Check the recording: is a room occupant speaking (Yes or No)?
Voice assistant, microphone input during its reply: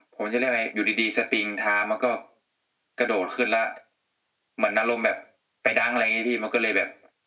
No